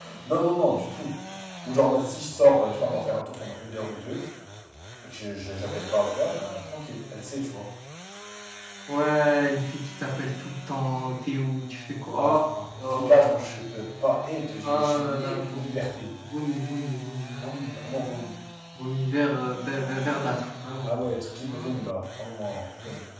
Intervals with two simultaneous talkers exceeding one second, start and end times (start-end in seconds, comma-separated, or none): 14.6-15.8